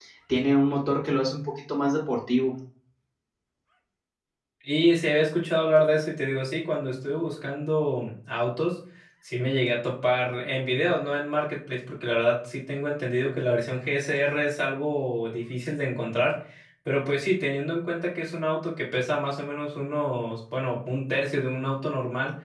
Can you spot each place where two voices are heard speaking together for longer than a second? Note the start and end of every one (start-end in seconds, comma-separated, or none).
none